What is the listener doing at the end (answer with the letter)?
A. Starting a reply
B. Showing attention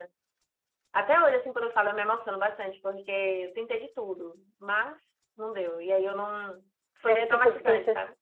A